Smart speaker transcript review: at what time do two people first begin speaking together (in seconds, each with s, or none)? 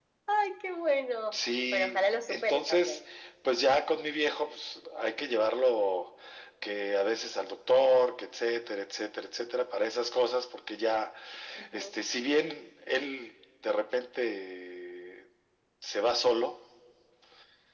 1.3 s